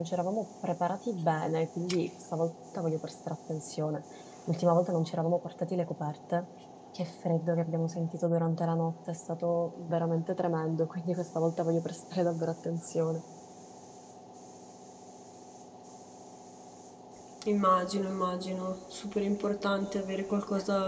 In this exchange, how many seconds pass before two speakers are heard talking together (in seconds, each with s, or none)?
none